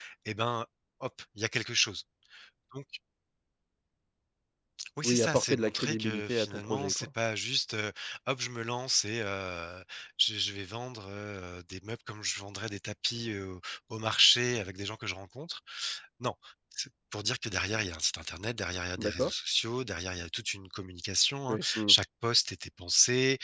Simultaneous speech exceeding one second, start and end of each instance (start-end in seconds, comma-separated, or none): 5.0-7.1